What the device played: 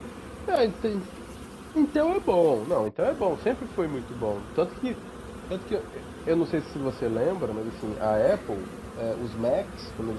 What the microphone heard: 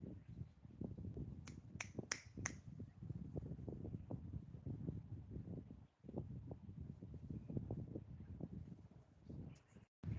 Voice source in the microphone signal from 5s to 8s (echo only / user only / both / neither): neither